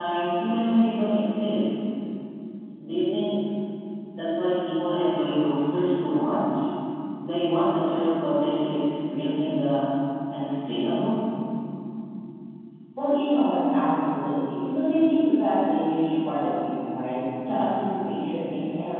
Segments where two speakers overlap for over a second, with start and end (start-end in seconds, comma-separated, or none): none